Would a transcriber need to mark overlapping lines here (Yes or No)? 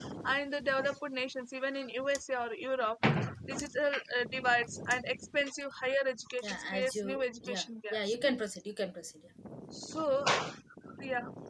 Yes